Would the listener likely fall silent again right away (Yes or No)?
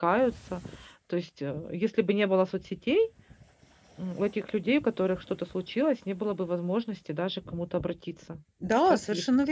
No